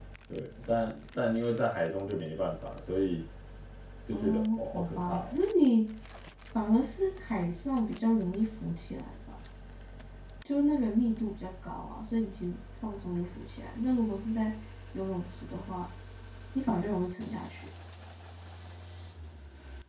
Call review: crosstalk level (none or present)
present